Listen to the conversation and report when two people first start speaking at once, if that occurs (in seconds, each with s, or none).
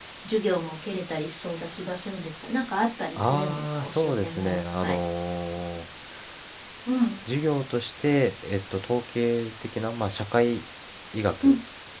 3.2 s